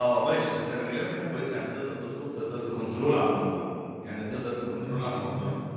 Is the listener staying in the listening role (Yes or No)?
No